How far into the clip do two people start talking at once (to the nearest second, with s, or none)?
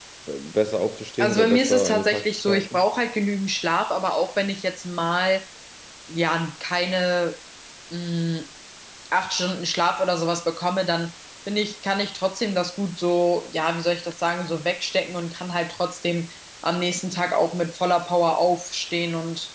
1 s